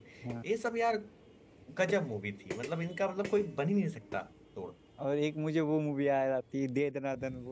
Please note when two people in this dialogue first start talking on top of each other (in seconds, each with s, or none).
none